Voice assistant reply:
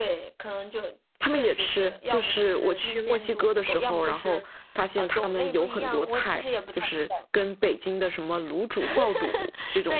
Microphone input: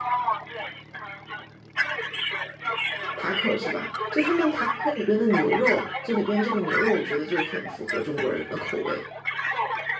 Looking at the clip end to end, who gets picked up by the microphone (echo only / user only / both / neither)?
both